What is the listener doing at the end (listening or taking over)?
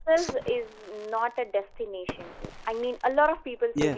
listening